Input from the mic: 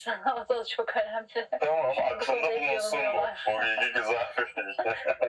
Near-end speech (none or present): none